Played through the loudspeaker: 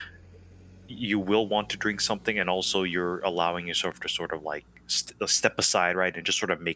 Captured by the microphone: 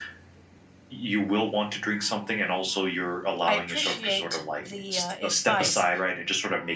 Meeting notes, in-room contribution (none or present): present